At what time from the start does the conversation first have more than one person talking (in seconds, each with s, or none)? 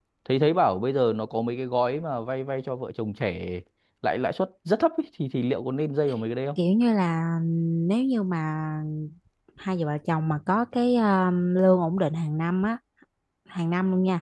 none